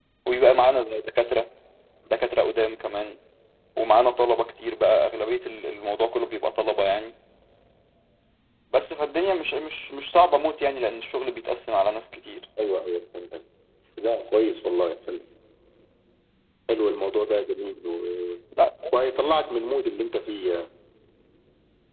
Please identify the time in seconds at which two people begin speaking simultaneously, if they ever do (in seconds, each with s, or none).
none